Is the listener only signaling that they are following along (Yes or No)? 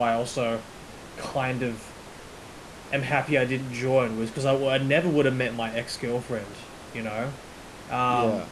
Yes